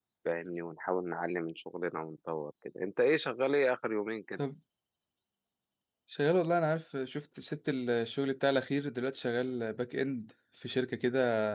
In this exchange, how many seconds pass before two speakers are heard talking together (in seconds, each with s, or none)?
none